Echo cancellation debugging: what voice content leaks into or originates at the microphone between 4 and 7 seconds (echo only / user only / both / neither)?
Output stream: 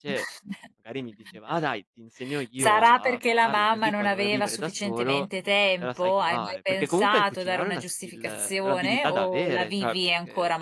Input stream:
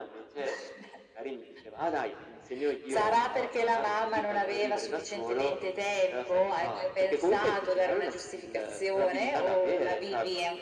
echo only